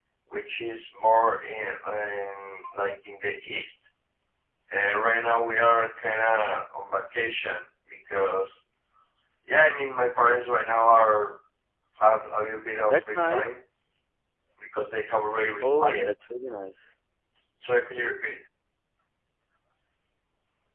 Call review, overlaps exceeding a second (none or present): none